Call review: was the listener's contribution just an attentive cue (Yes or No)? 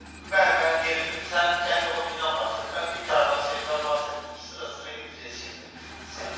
Yes